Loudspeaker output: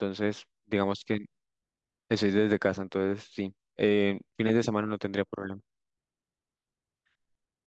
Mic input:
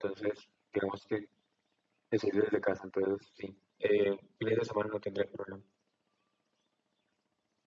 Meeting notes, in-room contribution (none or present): none